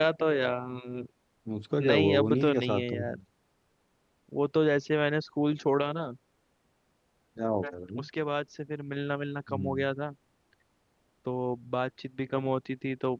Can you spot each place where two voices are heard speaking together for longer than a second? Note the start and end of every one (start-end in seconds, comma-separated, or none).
1.8-3.0